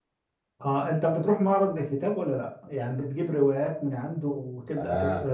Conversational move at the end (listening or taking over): taking over